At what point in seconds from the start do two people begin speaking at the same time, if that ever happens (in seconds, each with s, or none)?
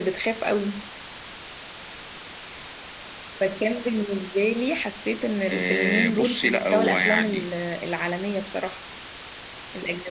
5.5 s